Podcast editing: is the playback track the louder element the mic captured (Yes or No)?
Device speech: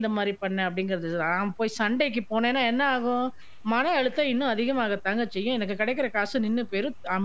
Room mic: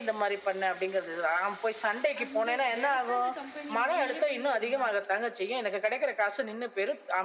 Yes